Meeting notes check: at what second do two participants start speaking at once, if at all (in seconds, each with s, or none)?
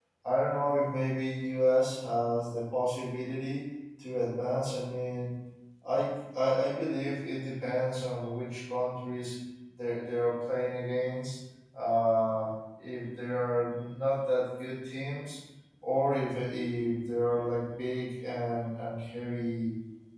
none